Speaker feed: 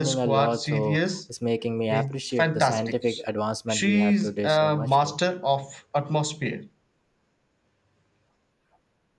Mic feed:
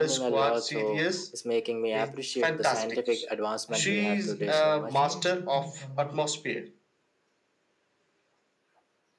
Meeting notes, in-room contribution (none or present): present